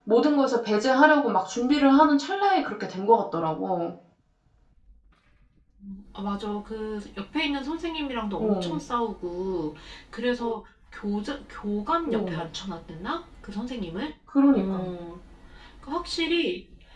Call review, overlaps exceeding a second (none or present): none